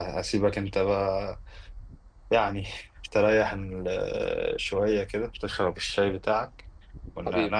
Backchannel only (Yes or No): Yes